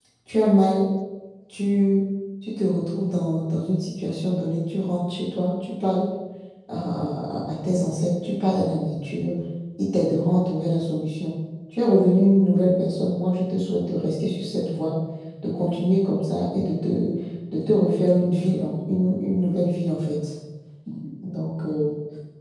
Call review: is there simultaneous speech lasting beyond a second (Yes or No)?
No